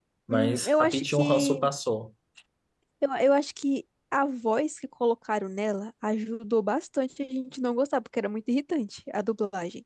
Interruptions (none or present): present